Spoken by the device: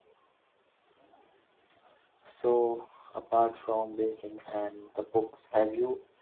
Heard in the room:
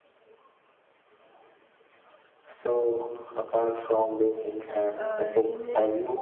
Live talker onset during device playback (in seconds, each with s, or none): 4.9 s